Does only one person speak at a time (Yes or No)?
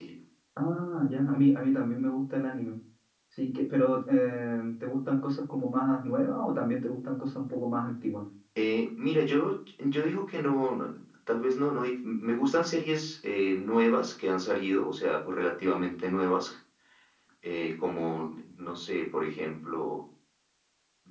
Yes